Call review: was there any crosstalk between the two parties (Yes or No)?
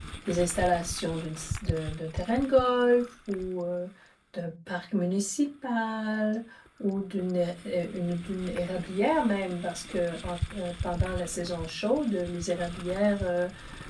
No